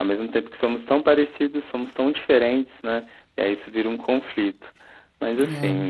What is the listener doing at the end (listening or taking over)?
listening